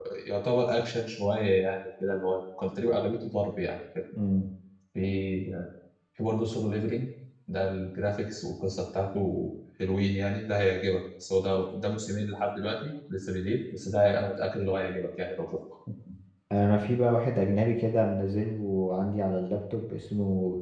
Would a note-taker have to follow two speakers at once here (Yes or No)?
No